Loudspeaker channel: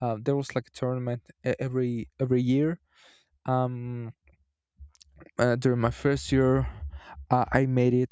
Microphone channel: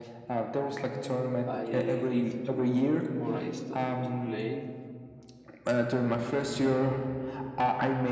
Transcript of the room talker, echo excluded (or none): I live to or I stopped to play.